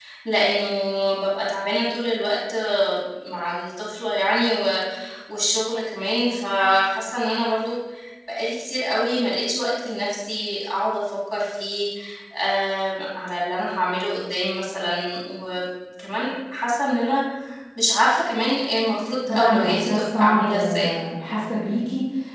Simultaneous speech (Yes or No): Yes